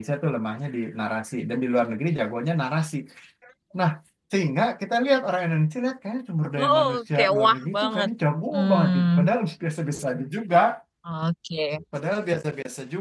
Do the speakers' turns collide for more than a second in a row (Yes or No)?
Yes